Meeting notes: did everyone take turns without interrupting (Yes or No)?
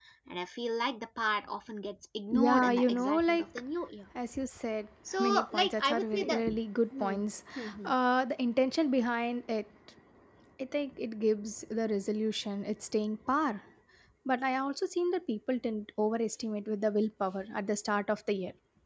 No